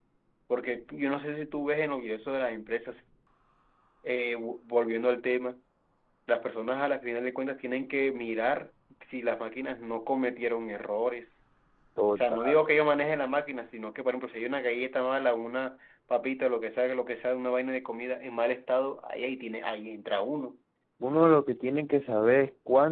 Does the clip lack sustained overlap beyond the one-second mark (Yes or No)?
Yes